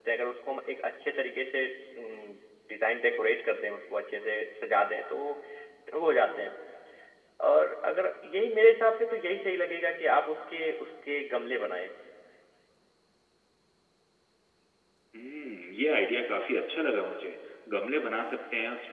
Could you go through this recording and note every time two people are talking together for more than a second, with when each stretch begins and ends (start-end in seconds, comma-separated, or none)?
none